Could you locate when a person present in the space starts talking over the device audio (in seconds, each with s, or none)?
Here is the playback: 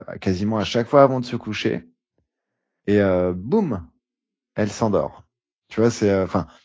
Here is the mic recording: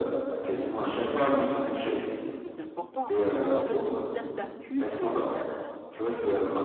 1.0 s